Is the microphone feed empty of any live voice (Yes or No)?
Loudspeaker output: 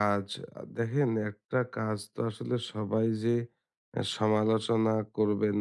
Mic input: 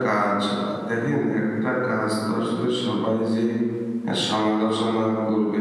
Yes